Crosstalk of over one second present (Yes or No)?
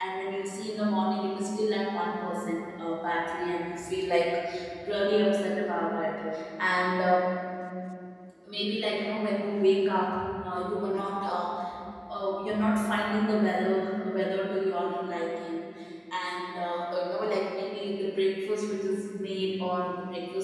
No